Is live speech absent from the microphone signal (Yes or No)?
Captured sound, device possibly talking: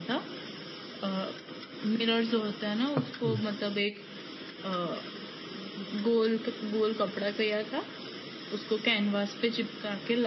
No